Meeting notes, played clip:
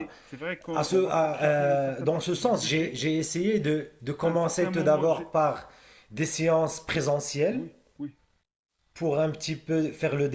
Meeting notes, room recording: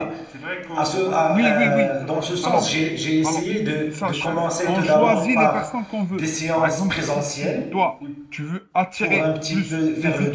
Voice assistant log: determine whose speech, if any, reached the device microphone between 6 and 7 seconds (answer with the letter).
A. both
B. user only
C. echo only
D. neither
A